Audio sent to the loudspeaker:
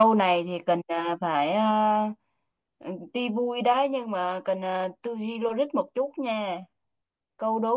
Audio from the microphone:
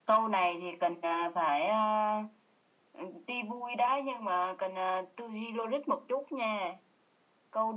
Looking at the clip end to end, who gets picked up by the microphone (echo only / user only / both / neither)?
echo only